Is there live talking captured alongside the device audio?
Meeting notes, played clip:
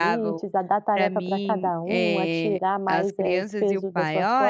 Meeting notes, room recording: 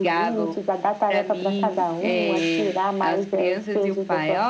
No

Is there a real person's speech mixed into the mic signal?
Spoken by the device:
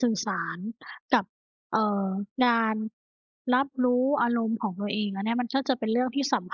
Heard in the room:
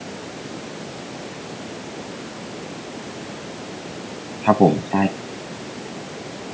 Yes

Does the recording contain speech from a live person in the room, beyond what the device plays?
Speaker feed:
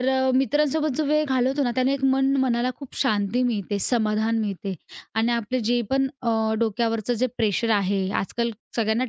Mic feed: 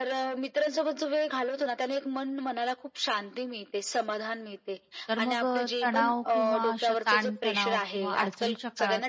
Yes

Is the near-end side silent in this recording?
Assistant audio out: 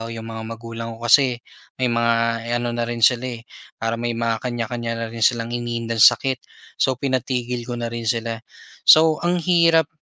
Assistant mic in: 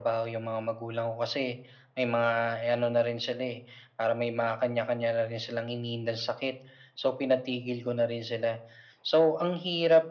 Yes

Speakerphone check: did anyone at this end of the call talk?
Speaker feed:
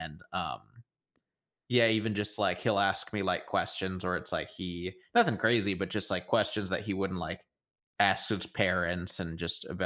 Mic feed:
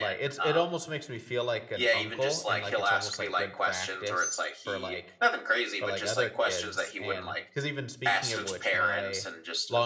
Yes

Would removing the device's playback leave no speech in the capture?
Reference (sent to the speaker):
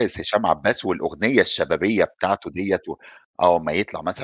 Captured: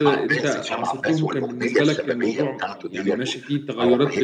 No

